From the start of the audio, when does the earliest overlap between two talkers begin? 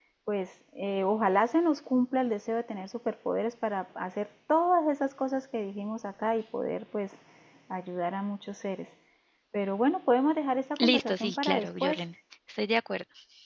10.8 s

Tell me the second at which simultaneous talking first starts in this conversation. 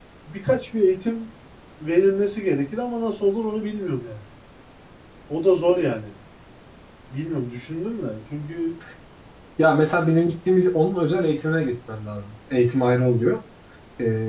none

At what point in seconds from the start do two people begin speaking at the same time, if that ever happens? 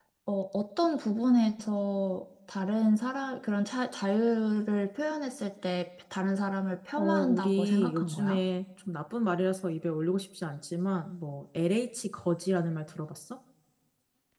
7.0 s

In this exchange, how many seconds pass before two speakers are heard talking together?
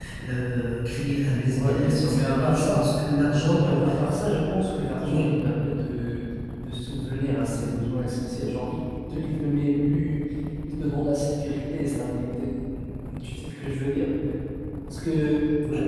1.5 s

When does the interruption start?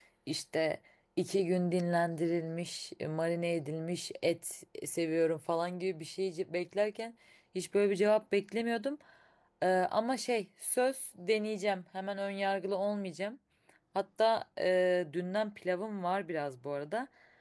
none

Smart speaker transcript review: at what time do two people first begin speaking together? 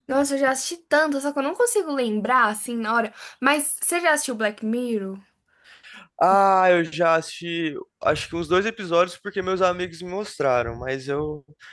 none

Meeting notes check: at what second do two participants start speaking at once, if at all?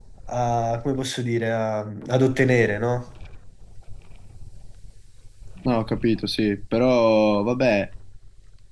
none

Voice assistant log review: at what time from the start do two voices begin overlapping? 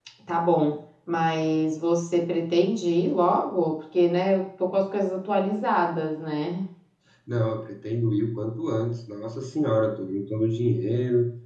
none

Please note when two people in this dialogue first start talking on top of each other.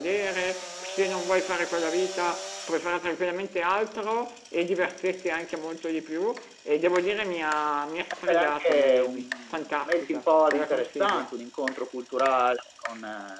8.1 s

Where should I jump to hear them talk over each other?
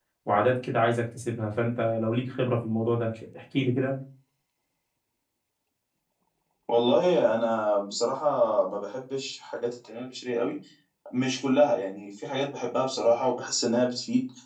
none

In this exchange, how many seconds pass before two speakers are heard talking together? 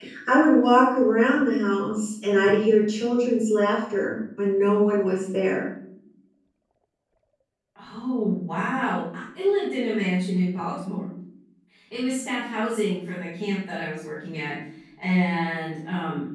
none

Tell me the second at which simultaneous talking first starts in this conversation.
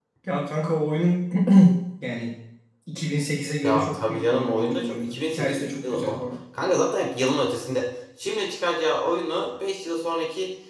3.6 s

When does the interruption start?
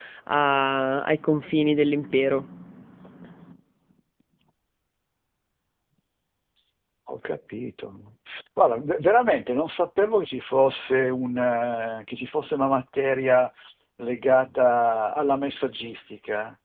none

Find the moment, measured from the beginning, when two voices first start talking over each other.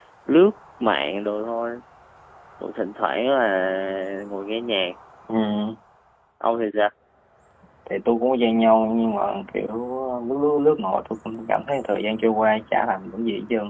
none

